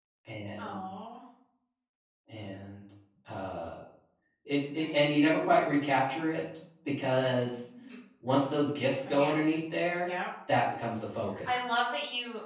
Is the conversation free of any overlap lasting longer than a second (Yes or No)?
Yes